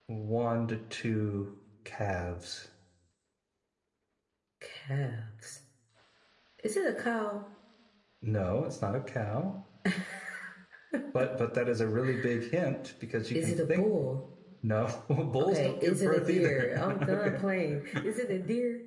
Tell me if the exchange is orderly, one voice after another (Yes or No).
No